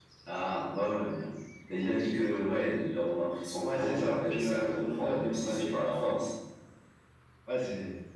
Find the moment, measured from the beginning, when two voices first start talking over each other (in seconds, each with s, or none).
3.6 s